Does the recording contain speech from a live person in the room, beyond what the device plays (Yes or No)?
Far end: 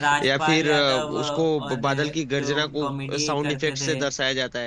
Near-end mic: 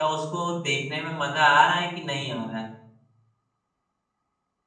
Yes